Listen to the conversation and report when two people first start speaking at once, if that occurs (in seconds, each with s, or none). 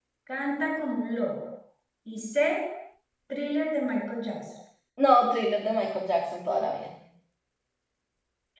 none